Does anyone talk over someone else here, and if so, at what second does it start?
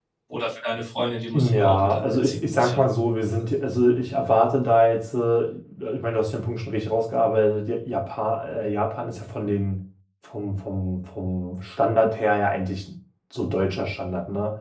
1.3 s

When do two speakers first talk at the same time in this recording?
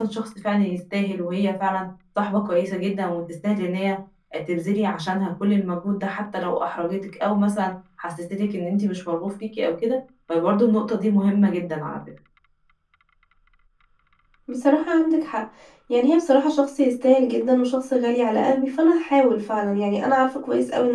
none

